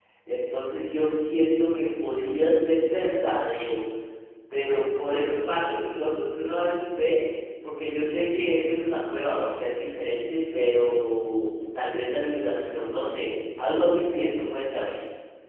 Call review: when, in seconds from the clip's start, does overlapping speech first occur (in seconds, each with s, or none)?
none